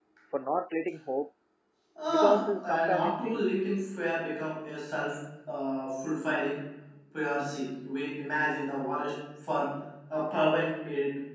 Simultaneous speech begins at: 2 s

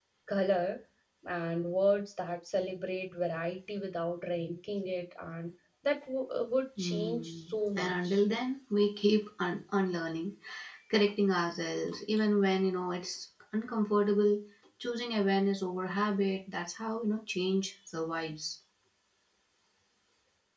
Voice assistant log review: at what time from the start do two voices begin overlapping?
7 s

